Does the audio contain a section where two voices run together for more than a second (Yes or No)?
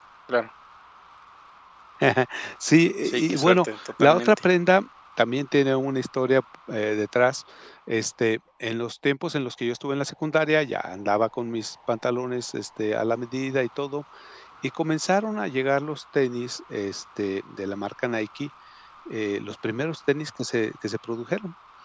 Yes